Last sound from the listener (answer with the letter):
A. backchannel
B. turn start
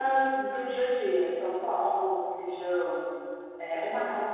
A